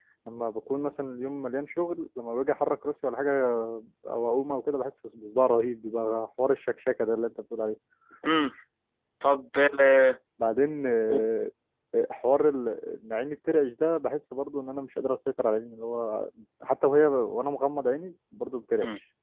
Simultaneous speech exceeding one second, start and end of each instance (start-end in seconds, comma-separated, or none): none